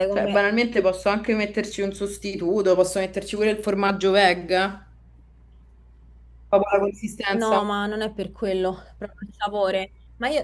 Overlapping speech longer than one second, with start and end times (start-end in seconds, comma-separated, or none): none